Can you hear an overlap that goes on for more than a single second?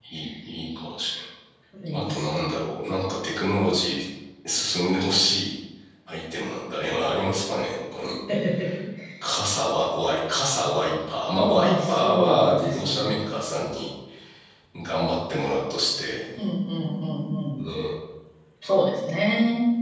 Yes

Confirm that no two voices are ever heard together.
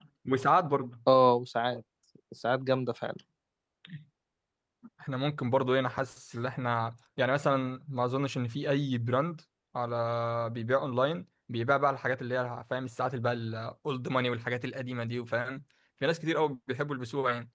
Yes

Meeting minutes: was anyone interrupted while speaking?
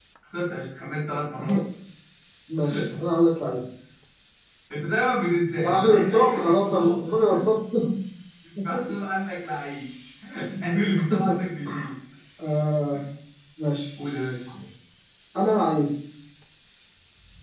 Yes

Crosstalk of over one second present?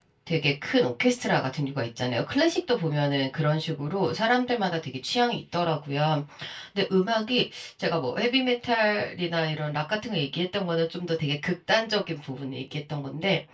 No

